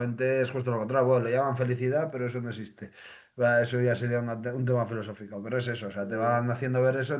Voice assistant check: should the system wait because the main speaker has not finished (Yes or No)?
Yes